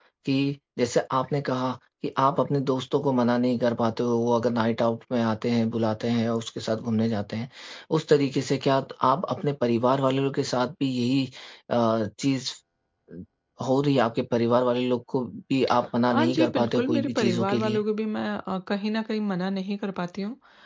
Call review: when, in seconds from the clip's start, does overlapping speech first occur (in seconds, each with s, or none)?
16.1 s